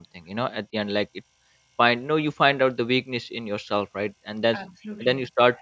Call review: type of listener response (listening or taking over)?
listening